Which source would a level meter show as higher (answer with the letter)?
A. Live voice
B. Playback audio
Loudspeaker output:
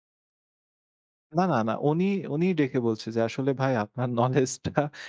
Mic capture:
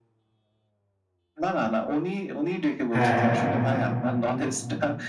A